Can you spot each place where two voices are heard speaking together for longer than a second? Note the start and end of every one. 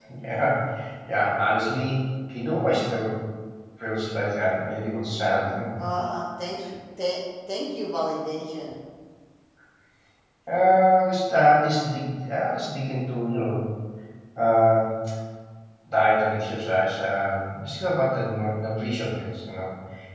none

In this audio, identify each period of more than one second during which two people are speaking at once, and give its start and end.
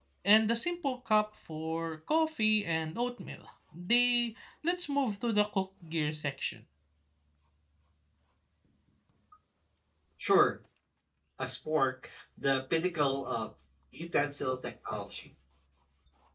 none

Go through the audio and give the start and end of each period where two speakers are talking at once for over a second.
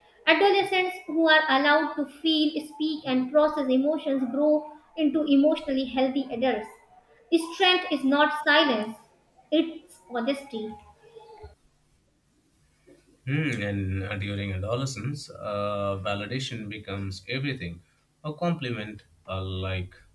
none

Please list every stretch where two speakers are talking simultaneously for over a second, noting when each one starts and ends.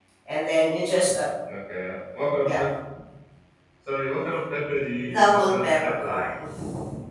5.1-6.3

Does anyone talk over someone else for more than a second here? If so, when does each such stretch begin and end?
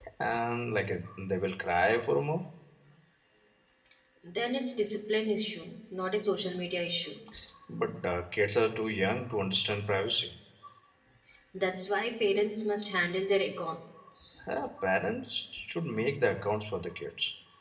none

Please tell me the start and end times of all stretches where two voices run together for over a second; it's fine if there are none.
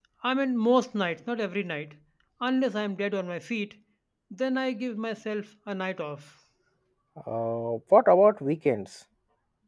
none

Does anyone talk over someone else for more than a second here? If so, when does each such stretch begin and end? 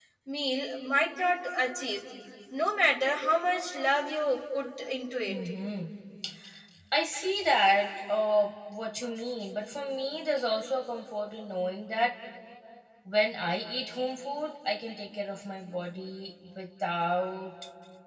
none

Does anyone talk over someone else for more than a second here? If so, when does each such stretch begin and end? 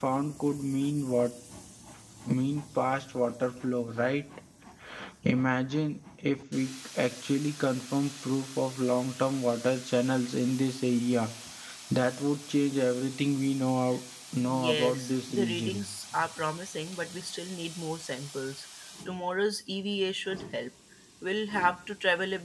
14.4-15.9

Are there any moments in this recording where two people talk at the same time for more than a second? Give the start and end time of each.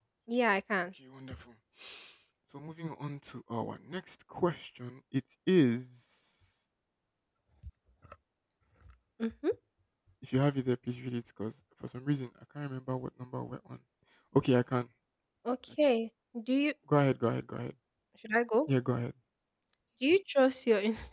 none

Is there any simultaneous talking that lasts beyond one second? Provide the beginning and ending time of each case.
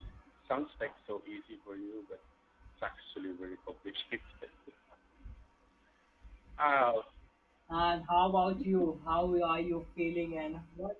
none

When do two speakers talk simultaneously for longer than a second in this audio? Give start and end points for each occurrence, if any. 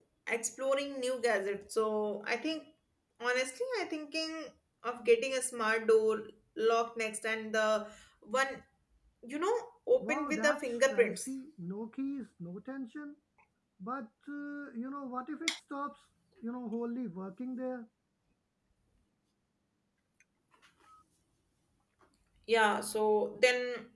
10.0-11.3

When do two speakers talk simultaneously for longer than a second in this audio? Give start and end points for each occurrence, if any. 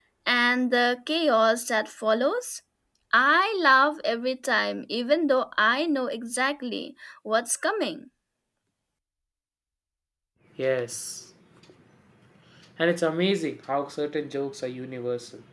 none

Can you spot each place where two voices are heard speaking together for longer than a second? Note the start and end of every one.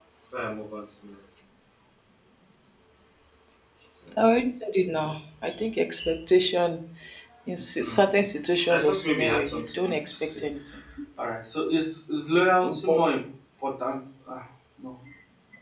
8.7-10.4

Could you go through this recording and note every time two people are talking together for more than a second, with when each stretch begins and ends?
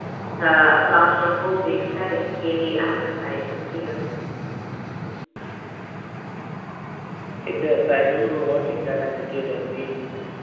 none

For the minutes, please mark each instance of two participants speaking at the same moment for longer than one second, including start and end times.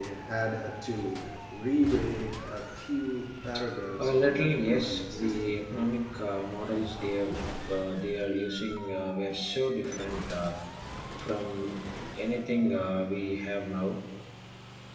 4.0-5.6

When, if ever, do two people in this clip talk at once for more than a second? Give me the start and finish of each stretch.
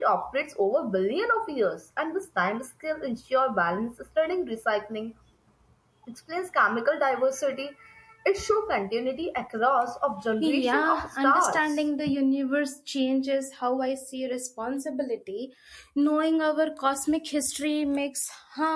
10.4-11.8

